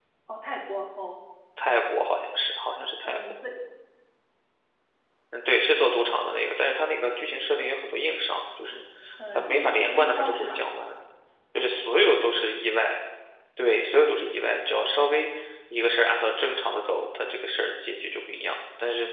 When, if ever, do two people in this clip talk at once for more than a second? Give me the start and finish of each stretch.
9.3-10.6

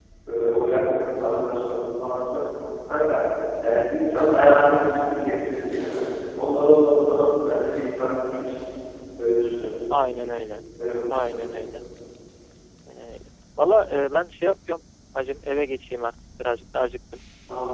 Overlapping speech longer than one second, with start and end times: none

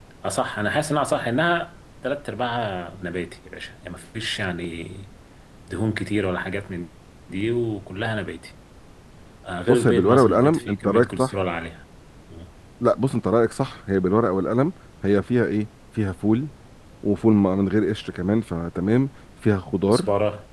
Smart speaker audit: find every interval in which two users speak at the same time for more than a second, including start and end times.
9.7-11.3

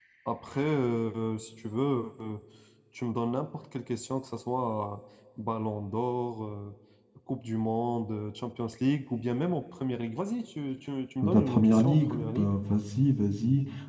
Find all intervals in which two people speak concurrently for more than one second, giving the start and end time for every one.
11.2-12.5

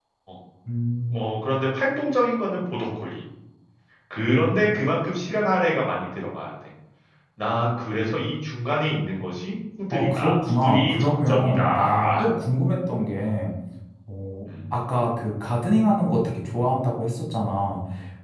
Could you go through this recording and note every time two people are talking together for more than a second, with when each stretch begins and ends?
9.9-12.3

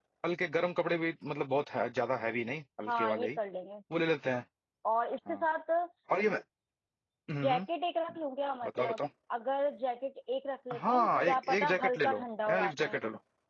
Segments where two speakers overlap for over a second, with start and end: 10.8-12.9

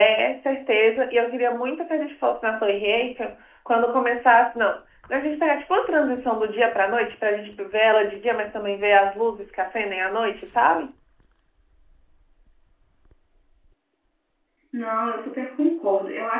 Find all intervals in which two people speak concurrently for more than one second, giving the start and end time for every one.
none

